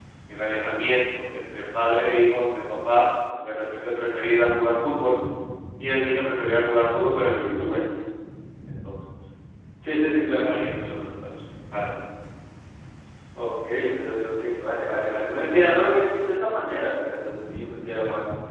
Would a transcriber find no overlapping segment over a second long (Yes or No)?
Yes